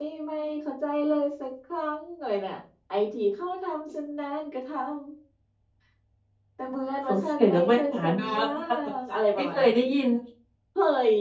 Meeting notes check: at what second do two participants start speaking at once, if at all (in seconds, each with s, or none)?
7.1 s